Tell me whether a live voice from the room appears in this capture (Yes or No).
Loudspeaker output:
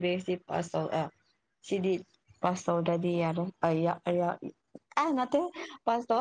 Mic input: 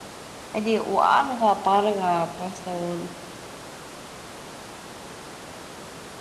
Yes